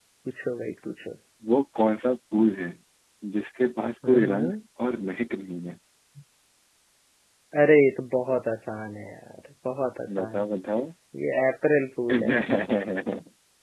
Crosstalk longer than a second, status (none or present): none